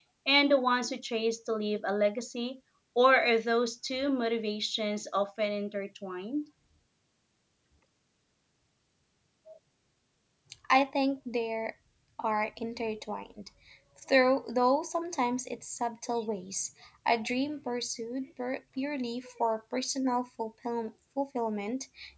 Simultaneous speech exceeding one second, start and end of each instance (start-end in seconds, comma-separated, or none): none